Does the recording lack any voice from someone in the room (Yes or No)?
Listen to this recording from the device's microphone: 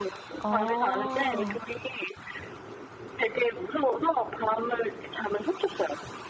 No